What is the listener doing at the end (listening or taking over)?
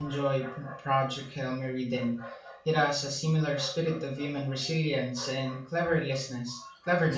taking over